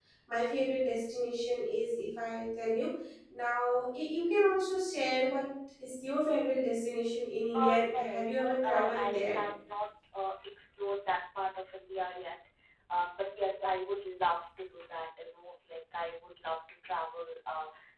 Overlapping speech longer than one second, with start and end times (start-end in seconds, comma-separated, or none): 7.5-9.4